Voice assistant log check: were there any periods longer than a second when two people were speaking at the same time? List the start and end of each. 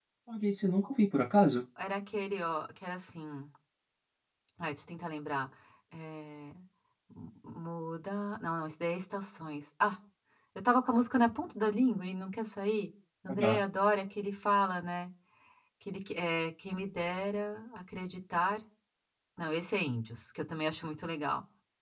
none

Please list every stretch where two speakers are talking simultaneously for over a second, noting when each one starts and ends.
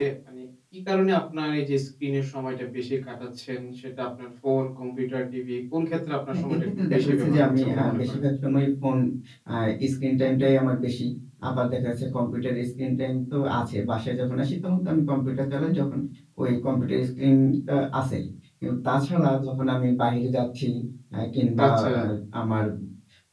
6.3-8.2

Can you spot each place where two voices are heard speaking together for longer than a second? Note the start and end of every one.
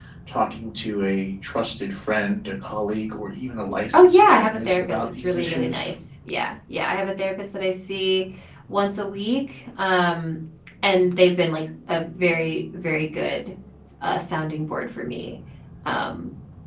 3.9-5.8

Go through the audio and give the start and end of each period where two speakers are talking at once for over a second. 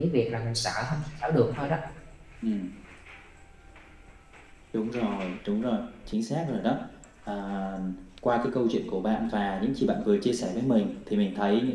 none

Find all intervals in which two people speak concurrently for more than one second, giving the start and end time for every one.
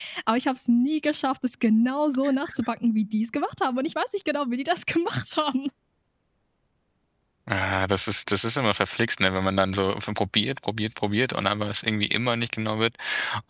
none

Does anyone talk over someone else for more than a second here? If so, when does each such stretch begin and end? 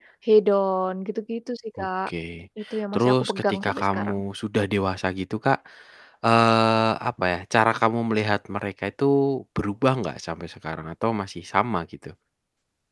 2.9-4.2

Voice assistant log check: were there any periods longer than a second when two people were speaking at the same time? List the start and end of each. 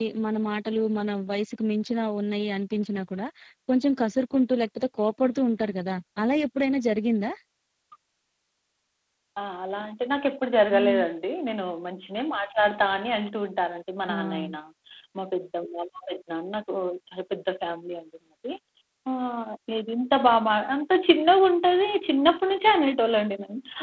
none

